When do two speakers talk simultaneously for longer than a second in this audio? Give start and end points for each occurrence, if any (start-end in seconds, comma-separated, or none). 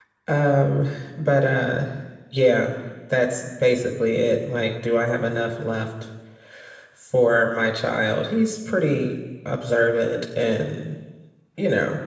none